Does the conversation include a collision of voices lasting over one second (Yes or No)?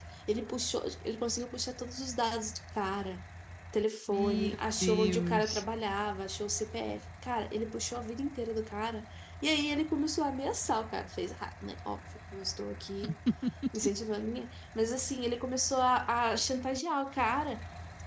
Yes